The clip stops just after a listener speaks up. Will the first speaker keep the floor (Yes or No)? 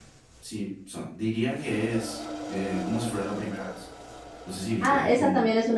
No